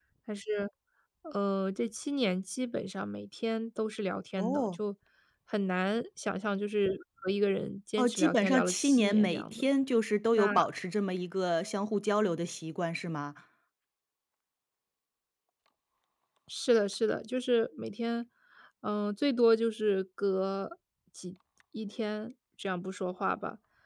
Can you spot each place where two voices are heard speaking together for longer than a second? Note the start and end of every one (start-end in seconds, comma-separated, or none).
8.0-9.7